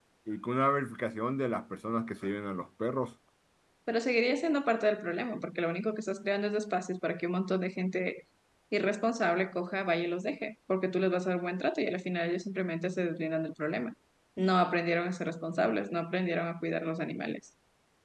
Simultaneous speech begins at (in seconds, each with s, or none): none